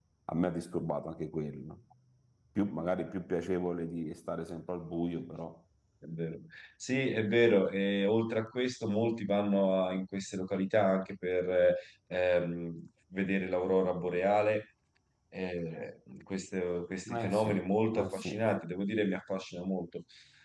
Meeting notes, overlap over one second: present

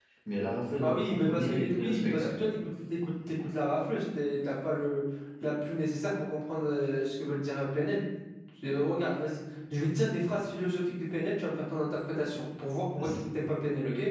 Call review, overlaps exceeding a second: present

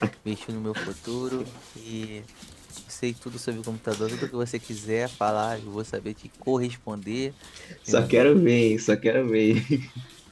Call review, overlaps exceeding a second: none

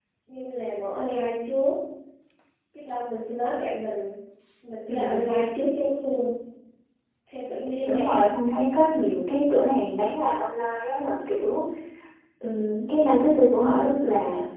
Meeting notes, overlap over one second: none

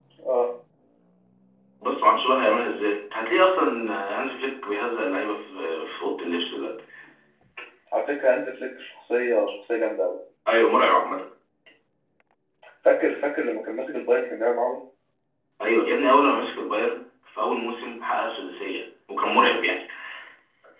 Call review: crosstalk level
none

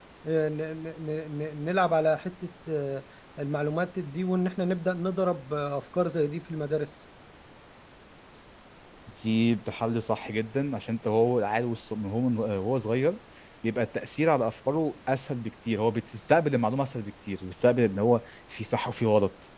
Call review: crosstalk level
none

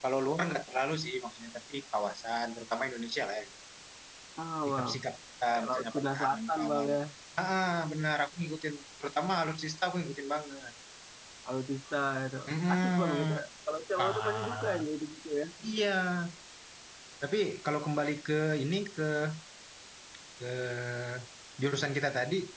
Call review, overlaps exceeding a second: present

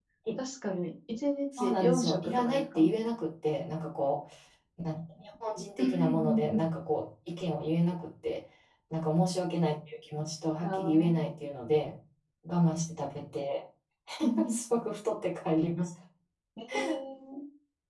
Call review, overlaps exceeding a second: present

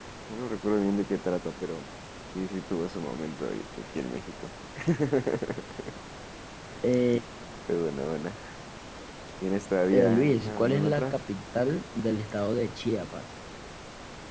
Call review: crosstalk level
present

